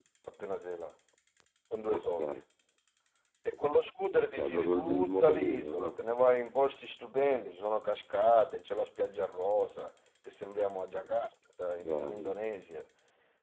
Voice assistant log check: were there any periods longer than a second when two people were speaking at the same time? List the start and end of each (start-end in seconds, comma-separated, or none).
4.2-5.9